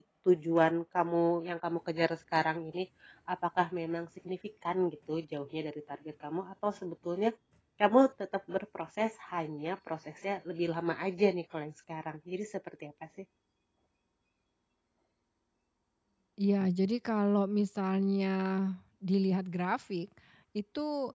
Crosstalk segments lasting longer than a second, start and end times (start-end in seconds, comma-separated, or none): none